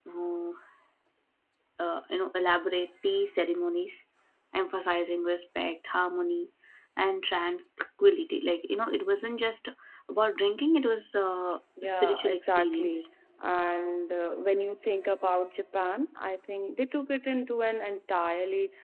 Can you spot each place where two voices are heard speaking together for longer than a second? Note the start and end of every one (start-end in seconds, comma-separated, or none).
11.8-13.0